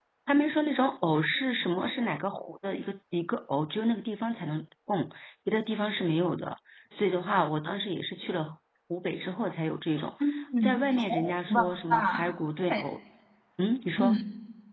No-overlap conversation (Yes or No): No